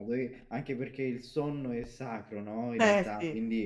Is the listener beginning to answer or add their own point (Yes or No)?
No